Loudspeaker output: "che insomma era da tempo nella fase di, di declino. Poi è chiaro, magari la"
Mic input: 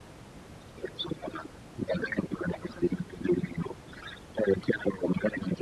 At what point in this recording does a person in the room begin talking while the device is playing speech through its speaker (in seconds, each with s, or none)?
none